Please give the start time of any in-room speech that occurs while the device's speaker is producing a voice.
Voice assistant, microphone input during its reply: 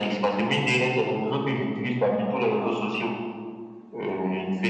none

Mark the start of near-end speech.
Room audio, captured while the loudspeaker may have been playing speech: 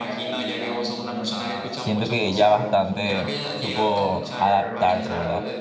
1.7 s

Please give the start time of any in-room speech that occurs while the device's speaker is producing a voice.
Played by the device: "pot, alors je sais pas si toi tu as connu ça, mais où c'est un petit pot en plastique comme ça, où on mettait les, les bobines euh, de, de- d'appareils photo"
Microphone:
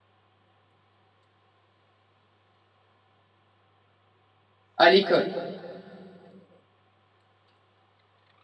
4.8 s

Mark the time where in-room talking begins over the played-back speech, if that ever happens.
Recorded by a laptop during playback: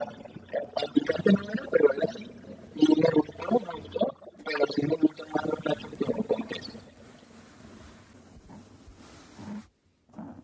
none

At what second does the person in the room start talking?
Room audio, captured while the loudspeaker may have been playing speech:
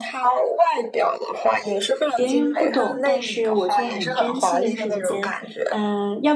2.1 s

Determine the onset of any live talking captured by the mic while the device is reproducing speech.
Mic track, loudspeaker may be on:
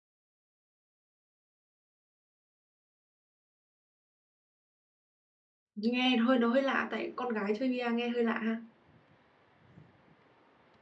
5.8 s

